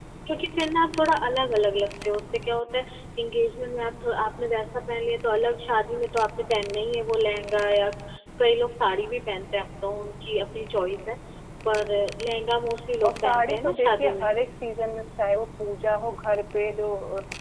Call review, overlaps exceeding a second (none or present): present